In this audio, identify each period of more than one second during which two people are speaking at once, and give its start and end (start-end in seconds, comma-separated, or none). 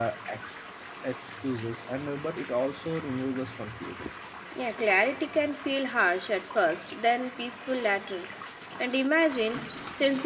none